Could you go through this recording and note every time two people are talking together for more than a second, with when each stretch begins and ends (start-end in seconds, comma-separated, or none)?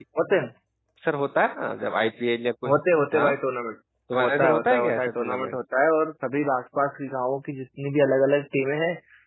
4.2-5.6